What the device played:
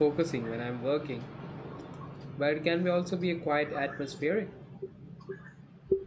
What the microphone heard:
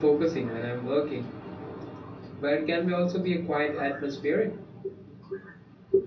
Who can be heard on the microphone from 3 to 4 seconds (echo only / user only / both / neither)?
echo only